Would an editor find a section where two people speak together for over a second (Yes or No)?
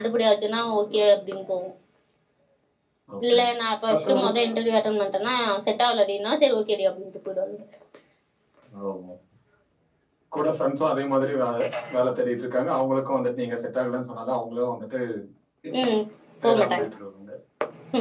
No